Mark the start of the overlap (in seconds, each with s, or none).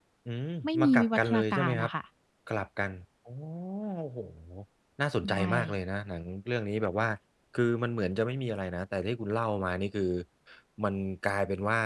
0.6 s